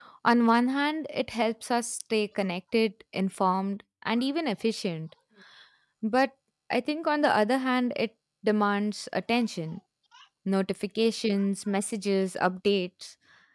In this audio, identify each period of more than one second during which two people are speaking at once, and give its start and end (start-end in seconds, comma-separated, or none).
none